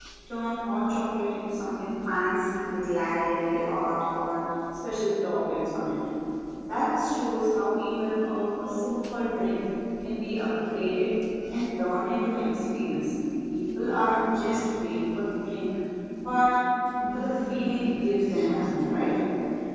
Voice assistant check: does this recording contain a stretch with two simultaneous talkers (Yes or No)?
Yes